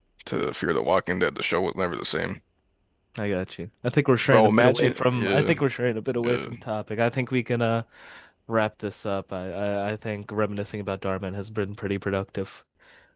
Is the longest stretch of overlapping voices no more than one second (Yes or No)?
No